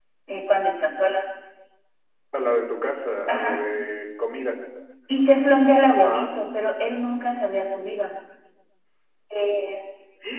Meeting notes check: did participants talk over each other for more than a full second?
No

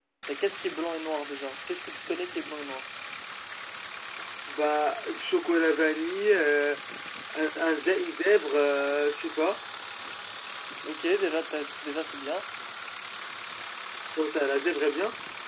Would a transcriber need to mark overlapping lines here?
No

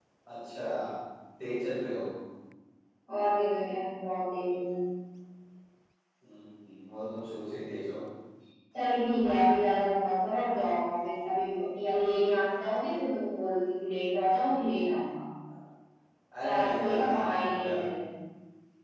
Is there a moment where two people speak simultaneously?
Yes, from 16.4 s

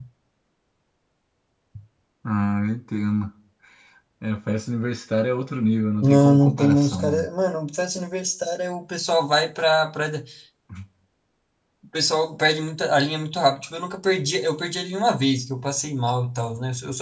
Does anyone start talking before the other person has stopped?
Yes, from 6.0 s

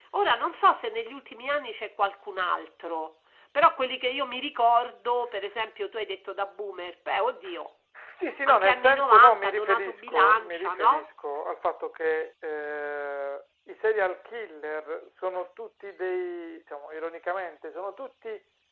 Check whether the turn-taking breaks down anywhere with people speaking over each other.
Yes, from 8.5 s

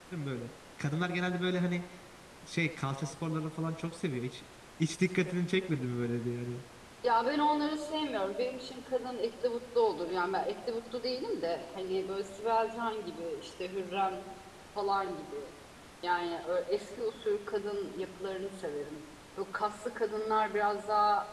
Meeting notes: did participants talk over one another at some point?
No

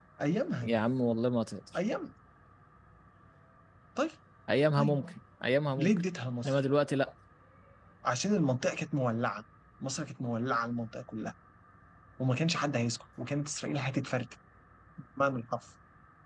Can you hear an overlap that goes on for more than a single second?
No

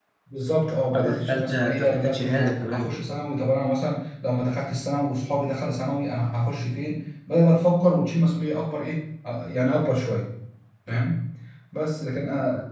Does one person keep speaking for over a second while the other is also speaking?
Yes, from 0.9 s

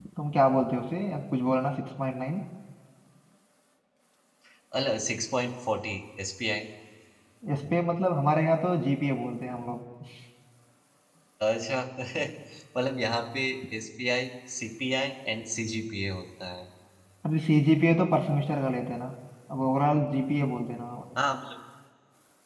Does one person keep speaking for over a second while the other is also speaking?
No

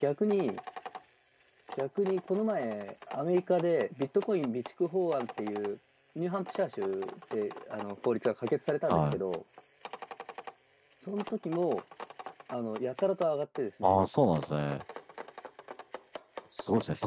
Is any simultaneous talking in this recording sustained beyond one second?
No

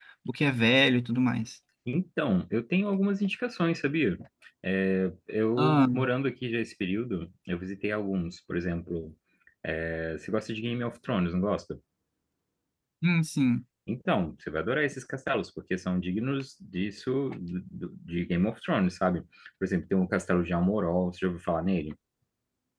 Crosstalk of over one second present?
No

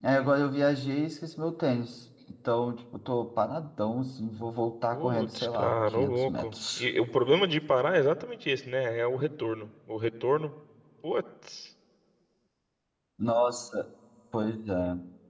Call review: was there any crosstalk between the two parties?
Yes, from 4.9 s

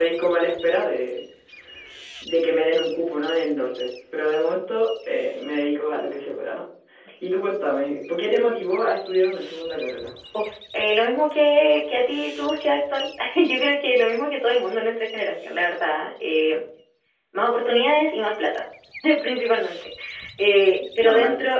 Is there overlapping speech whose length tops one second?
No

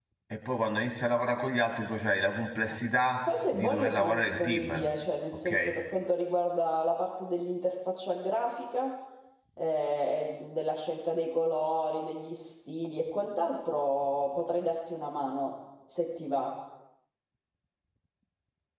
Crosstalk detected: Yes, from 3.5 s

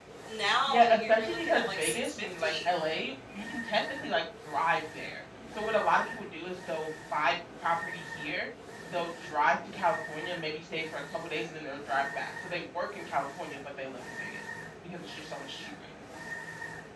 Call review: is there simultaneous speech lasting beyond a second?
Yes, from 0.7 s

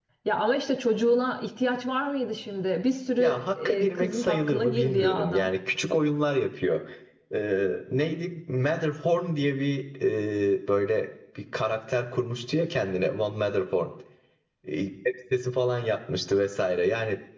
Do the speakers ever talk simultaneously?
Yes, from 3.2 s

